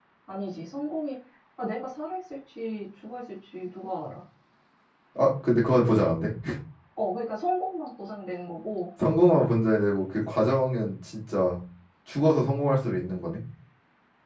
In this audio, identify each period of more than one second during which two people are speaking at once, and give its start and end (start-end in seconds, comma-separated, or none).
none